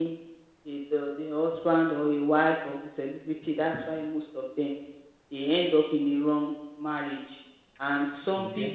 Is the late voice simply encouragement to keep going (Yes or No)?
Yes